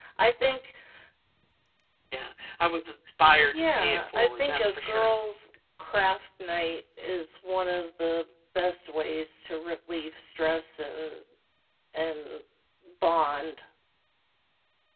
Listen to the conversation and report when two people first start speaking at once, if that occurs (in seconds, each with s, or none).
3.4 s